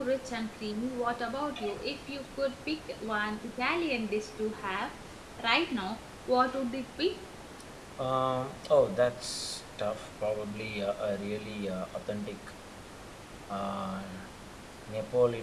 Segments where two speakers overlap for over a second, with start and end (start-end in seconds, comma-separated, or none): none